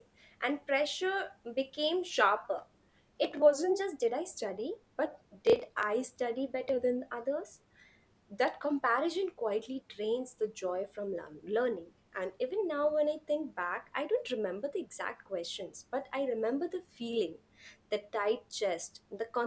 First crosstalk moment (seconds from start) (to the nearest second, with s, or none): none